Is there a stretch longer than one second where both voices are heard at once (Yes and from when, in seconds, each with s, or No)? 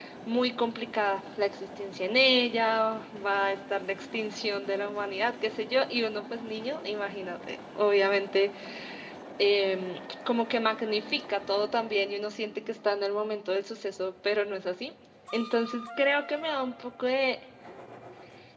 No